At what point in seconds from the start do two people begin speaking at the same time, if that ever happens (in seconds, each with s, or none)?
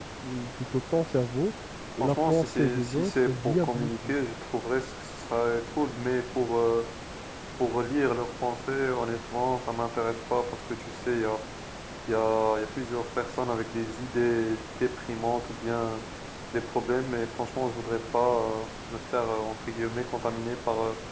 2.0 s